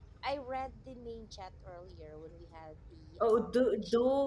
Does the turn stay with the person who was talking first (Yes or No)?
No